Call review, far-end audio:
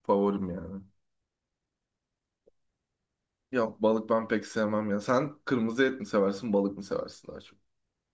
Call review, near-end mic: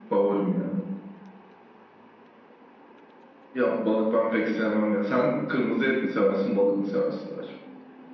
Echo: present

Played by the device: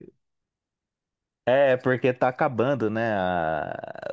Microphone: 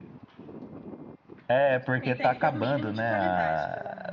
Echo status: present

